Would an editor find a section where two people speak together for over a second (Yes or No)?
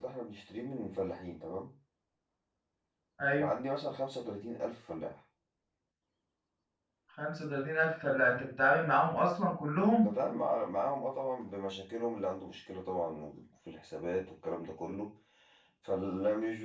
No